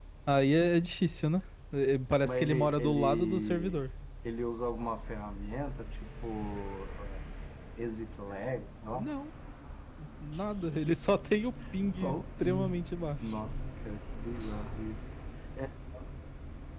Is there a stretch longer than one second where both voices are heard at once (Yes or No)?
Yes